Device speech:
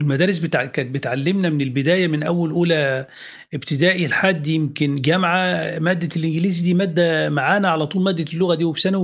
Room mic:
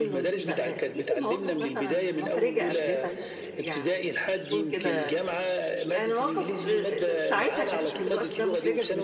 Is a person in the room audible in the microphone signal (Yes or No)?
Yes